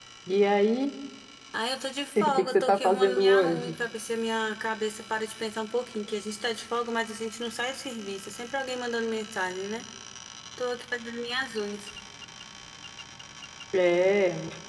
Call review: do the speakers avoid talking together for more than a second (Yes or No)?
No